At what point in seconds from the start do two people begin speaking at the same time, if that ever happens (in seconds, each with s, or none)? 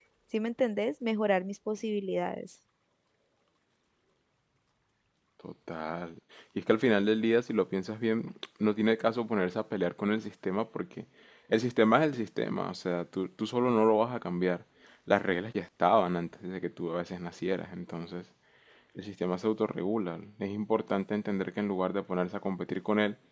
none